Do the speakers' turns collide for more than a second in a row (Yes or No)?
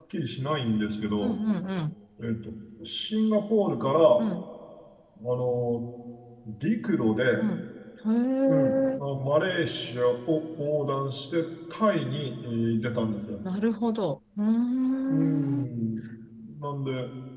No